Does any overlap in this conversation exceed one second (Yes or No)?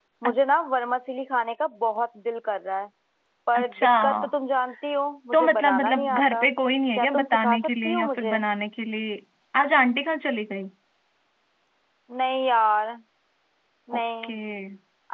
Yes